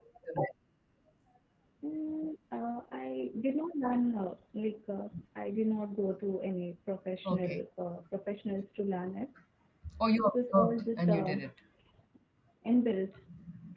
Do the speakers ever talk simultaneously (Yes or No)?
Yes